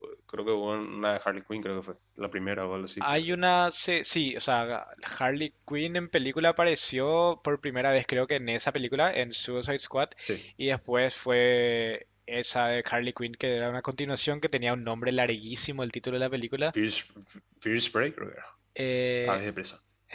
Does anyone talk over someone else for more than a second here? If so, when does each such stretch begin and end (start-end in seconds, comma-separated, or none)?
none